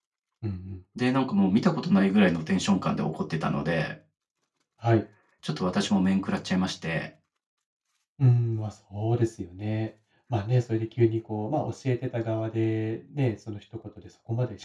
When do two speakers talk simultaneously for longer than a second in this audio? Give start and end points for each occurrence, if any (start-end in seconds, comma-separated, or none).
none